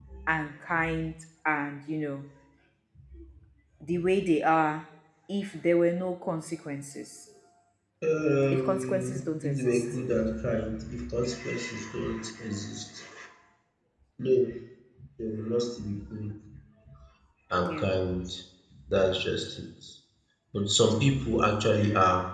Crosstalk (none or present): present